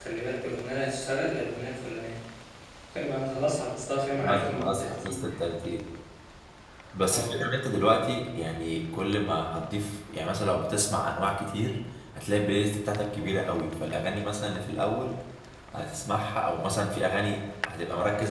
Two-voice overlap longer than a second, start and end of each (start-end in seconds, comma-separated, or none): 4.2-5.4